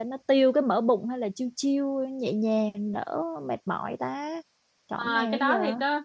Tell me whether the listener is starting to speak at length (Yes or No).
Yes